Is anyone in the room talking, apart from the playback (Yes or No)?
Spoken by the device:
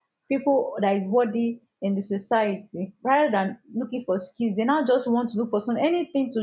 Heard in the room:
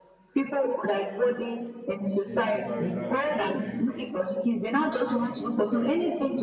Yes